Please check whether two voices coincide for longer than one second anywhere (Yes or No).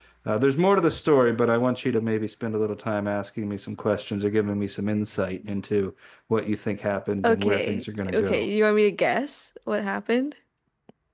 Yes